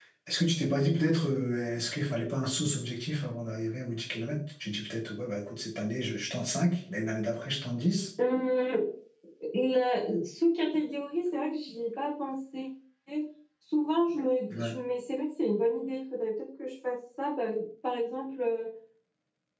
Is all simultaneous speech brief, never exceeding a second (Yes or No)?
Yes